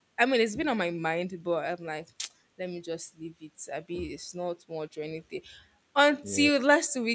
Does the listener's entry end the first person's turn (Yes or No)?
No